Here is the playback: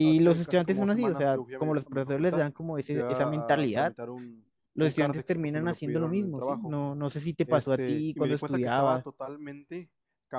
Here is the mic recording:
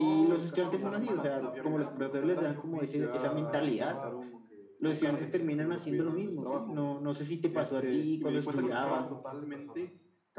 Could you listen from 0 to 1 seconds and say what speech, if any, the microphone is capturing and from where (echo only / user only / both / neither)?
both